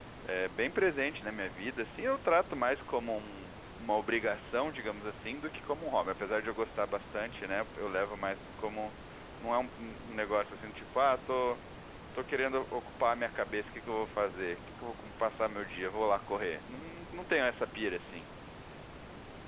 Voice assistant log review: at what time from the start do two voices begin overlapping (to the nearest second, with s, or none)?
none